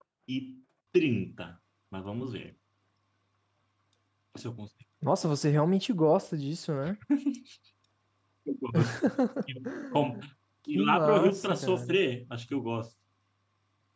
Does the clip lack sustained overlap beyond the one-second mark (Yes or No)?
No